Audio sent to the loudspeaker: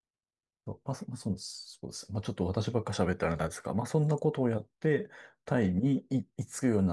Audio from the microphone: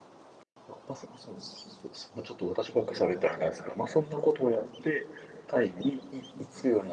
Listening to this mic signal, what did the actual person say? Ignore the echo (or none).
none